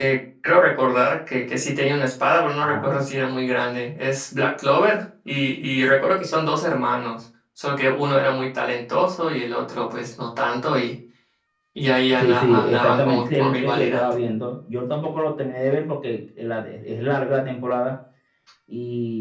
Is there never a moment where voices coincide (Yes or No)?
No